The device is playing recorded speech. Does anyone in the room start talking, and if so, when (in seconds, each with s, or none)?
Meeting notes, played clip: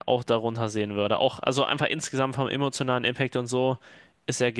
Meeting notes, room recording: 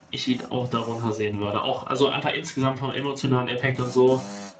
none